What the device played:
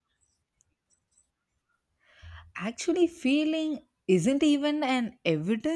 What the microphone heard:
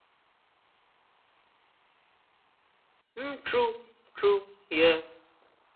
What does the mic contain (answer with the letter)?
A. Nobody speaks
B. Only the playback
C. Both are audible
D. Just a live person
D